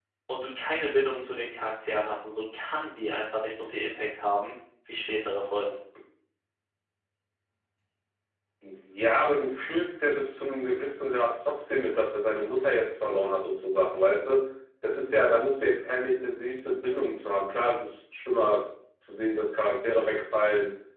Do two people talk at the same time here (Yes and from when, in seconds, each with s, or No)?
No